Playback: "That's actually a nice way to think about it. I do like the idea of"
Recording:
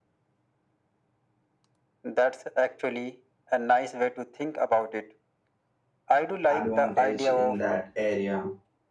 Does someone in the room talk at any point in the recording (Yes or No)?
Yes